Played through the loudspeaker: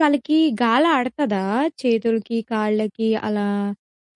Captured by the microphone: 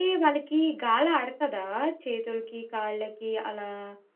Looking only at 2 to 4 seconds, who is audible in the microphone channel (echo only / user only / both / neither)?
echo only